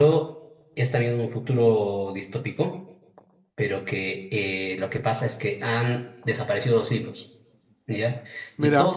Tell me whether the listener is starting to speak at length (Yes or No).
No